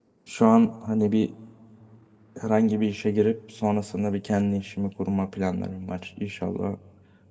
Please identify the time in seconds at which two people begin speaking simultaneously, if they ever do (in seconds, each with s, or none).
none